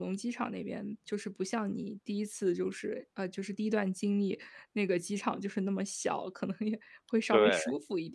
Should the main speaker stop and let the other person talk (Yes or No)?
No